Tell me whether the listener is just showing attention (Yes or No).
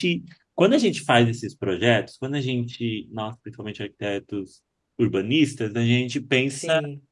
Yes